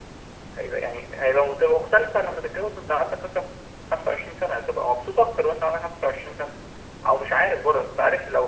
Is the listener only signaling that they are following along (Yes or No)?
Yes